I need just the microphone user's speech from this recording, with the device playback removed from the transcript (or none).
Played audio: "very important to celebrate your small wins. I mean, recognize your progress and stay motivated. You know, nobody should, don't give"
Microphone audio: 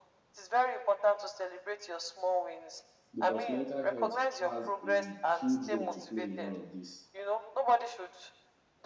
because mental health has a huge role to play in all of this.